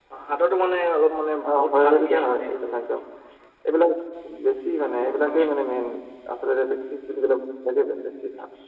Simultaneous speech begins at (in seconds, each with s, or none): 1.4 s